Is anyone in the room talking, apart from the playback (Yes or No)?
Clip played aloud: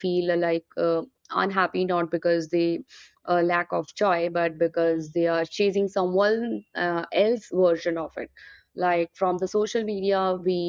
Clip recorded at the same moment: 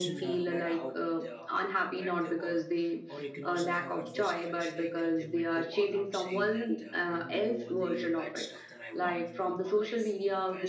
Yes